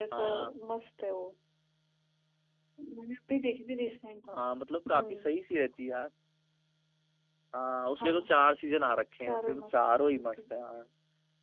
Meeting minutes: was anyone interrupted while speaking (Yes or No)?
Yes